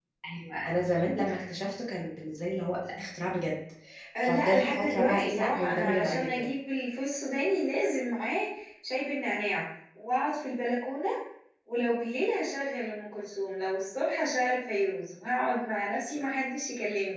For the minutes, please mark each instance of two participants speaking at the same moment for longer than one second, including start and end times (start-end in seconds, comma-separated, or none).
4.2-6.5